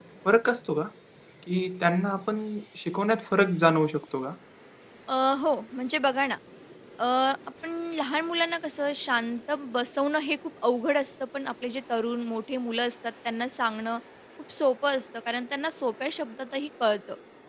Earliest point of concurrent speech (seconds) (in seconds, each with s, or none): none